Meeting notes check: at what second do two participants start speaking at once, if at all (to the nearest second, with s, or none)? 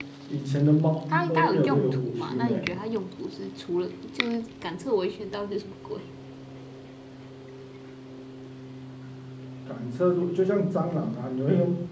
1 s